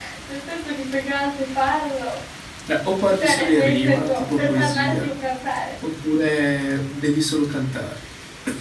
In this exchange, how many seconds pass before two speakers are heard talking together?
3.2 s

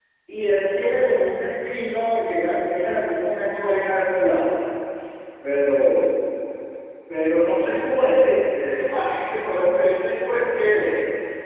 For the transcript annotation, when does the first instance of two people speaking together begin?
none

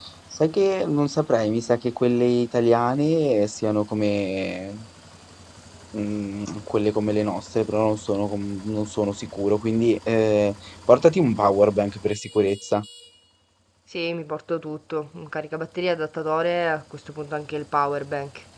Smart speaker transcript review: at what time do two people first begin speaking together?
none

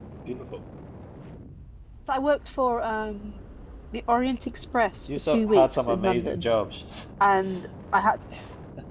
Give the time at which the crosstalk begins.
5.1 s

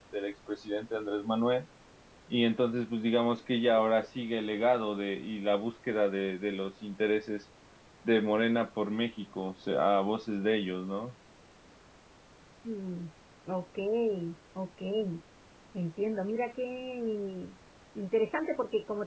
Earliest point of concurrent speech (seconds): none

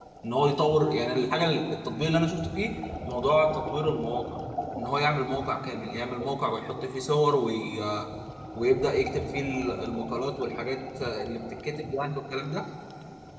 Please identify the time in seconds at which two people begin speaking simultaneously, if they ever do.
none

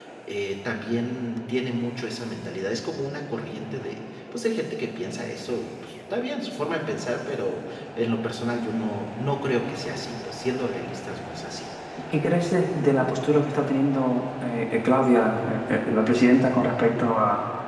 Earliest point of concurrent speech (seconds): none

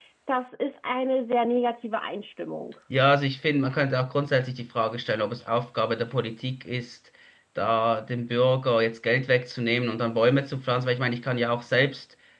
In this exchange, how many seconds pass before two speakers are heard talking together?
none

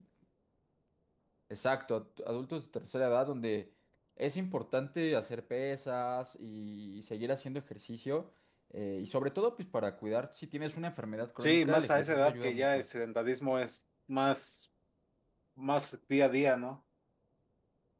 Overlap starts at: 11.4 s

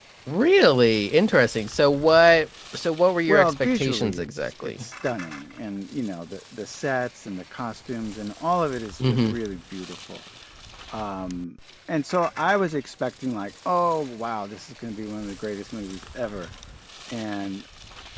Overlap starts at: 3.3 s

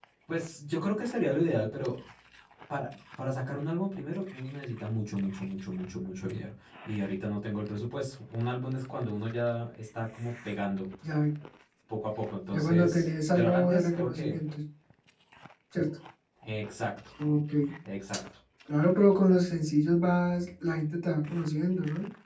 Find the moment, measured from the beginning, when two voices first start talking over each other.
12.5 s

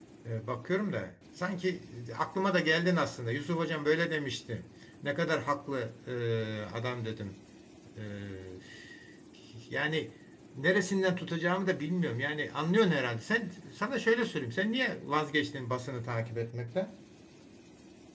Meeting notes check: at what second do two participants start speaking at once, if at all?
none

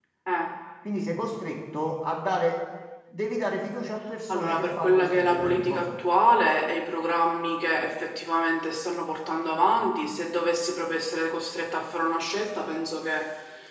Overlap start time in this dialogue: 4.3 s

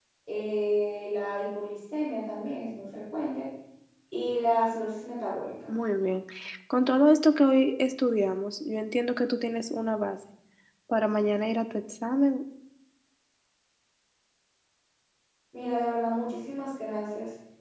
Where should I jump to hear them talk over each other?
none

